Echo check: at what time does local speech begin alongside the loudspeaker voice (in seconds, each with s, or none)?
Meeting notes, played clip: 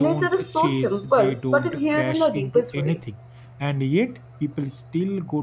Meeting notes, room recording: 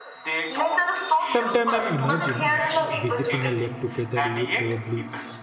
1.2 s